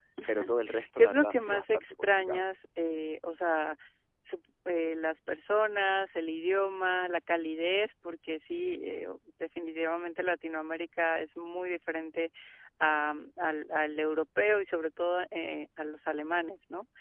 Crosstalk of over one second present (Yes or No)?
Yes